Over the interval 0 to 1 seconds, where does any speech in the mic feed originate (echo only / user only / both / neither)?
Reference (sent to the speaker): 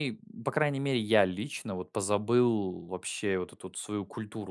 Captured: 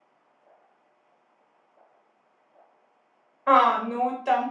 neither